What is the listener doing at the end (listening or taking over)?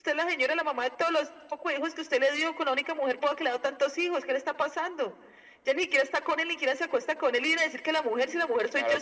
taking over